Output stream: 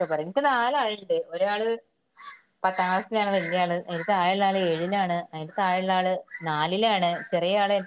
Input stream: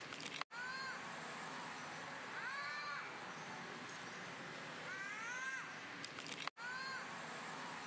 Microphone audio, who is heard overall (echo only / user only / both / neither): neither